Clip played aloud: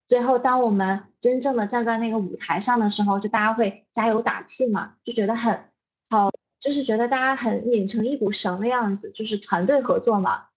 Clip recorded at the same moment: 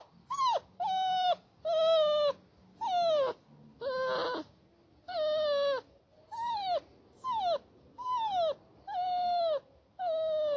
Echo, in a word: none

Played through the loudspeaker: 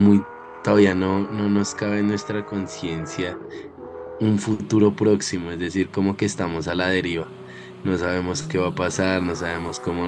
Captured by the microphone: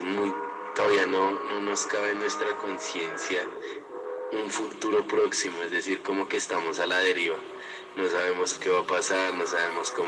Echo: present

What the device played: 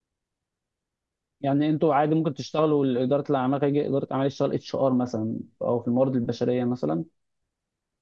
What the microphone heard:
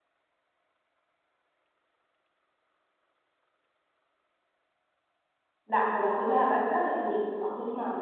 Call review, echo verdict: none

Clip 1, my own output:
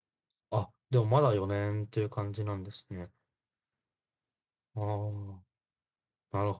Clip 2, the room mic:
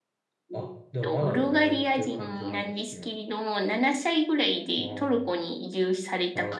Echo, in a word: present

